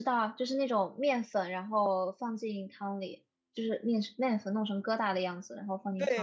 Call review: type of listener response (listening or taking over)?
taking over